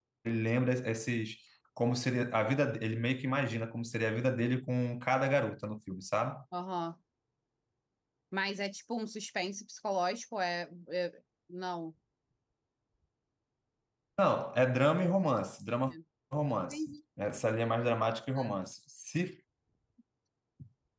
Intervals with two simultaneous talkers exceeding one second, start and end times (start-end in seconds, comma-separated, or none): none